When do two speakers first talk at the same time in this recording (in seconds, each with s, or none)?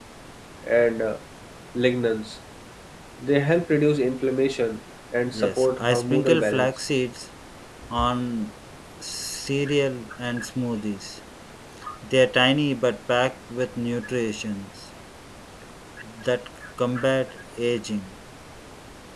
5.3 s